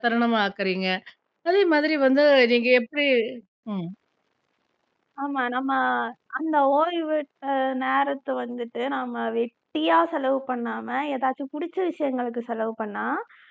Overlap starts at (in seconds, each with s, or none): none